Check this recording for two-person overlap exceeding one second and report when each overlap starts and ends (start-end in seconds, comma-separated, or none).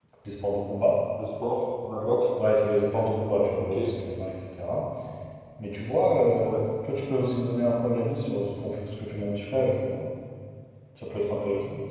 none